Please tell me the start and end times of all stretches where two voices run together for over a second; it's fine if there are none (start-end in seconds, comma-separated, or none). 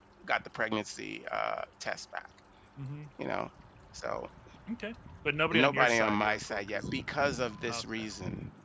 5.5-6.9